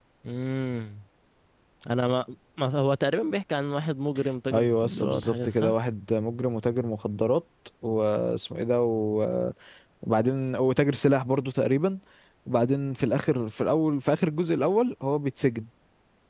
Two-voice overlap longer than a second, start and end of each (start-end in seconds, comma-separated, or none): 4.5-5.7